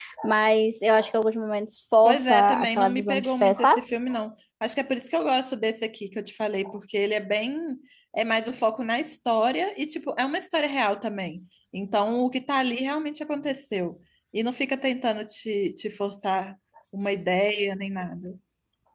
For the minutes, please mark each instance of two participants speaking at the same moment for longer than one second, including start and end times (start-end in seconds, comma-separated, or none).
2.0-3.8